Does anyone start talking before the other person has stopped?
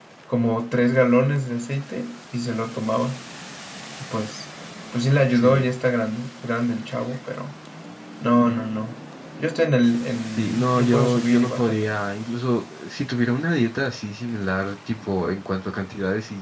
Yes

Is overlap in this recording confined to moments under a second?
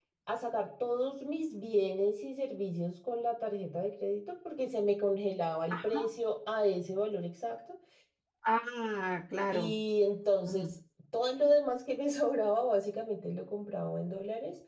Yes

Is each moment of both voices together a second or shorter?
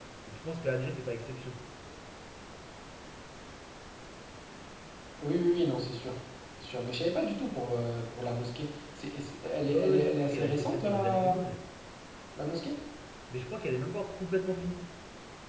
No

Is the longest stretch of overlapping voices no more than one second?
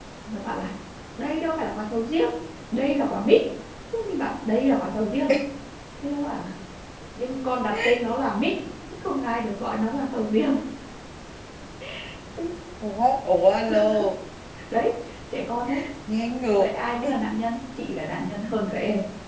Yes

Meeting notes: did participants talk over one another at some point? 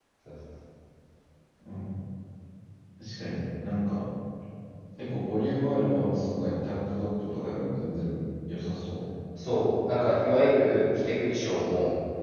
No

